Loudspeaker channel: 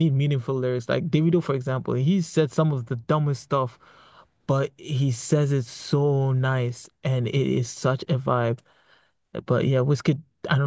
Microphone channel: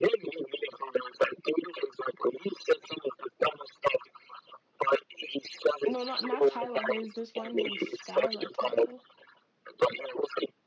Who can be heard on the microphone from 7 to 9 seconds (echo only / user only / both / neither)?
both